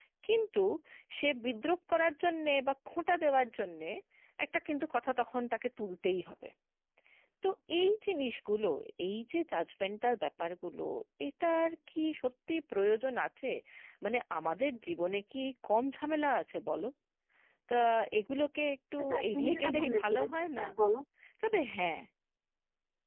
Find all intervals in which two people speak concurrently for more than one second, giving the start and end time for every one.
19.0-20.2

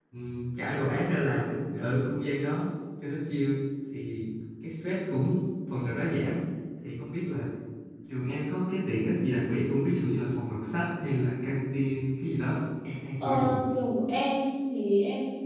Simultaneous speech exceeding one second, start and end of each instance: none

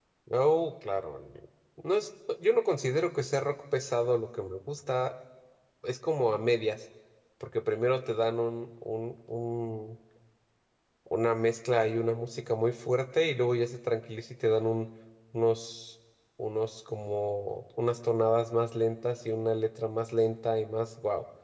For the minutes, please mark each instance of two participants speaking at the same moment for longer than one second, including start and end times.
none

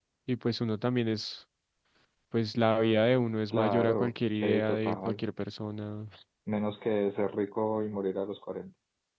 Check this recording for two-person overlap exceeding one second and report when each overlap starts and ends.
3.5-5.2

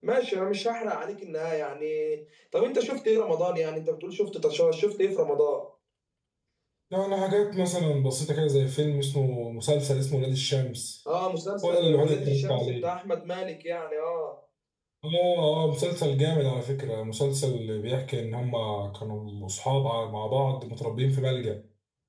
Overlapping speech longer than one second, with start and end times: 11.7-12.9

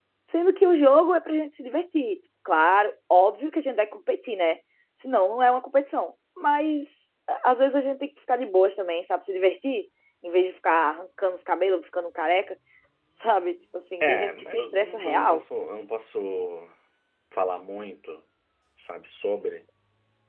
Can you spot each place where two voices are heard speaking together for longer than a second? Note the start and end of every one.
14.0-15.4

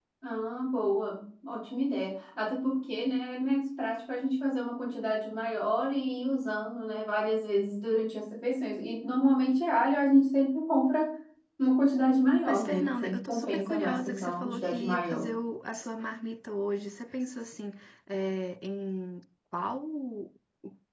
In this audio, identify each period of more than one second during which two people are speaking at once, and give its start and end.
12.4-15.3

